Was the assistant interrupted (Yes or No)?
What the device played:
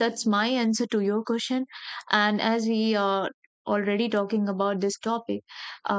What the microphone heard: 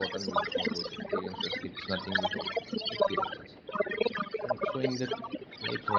Yes